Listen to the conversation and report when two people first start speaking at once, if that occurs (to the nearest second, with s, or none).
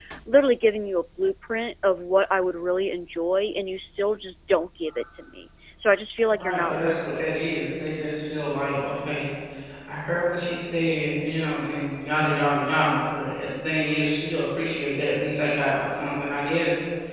6 s